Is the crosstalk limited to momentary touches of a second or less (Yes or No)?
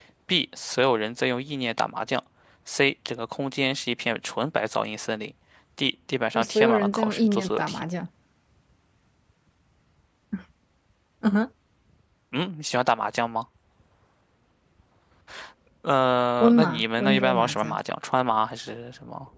No